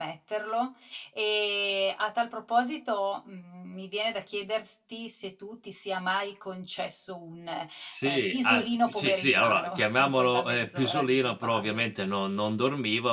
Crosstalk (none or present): present